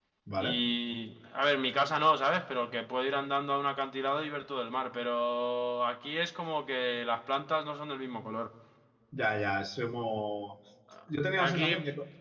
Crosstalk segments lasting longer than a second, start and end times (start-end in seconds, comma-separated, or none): none